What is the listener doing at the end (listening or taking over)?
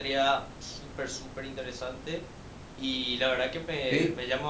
listening